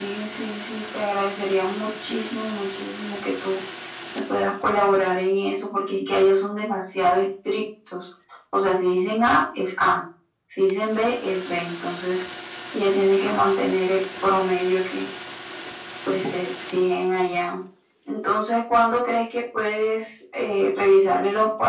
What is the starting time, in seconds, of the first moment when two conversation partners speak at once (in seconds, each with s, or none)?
none